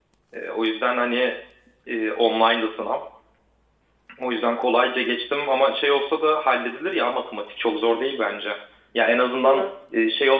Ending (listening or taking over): listening